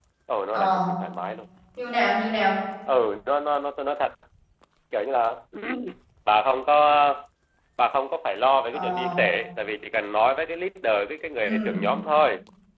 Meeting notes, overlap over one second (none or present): none